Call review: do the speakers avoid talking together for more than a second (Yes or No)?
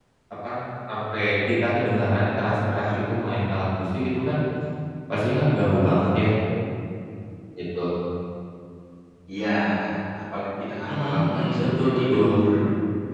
No